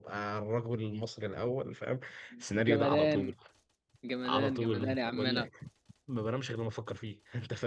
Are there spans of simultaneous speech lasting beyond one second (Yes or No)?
Yes